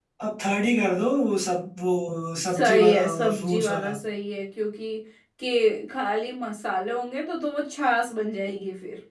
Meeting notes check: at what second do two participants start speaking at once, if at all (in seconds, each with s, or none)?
2.5 s